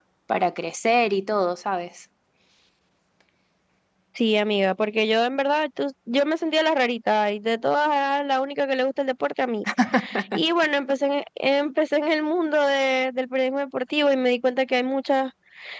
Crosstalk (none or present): none